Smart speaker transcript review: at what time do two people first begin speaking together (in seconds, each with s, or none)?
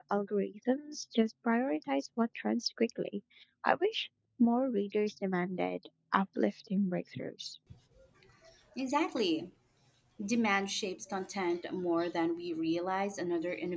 none